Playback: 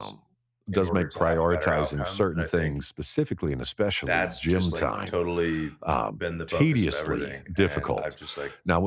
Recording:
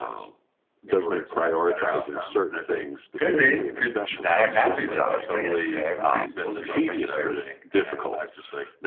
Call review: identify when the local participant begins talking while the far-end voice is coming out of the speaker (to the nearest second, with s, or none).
3 s